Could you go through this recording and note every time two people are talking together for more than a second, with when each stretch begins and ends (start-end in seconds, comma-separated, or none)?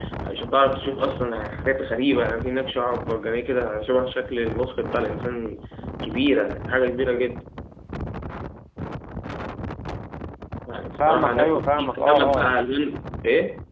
11.0-12.5